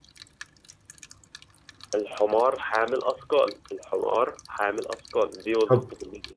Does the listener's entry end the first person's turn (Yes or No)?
Yes